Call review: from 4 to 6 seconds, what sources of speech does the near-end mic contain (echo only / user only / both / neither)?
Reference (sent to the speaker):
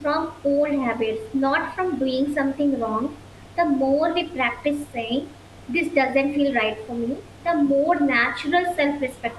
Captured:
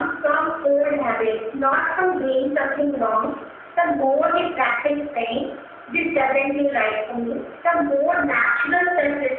echo only